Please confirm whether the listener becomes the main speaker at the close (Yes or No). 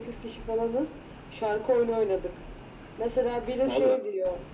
No